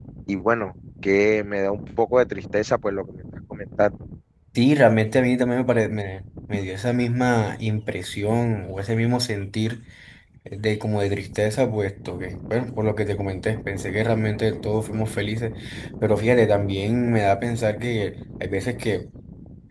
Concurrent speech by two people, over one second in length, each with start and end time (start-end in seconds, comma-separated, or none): none